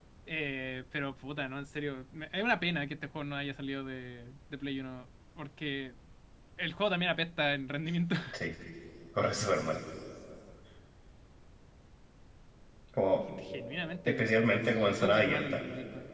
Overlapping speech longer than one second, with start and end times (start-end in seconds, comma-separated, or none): 14.1-15.6